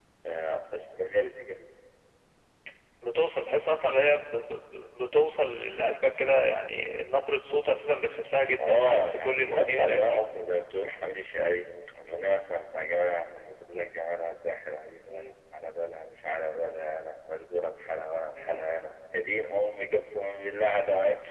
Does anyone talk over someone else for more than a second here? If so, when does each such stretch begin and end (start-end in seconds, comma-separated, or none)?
8.7-10.2